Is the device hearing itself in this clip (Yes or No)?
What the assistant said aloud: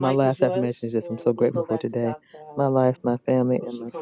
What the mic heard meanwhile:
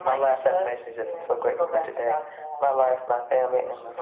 Yes